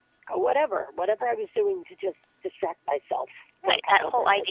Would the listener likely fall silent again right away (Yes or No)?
No